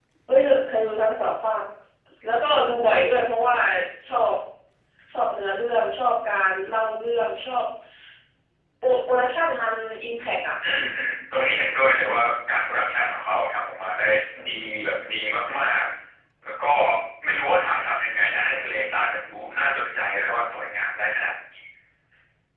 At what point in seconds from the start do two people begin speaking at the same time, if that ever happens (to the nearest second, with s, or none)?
none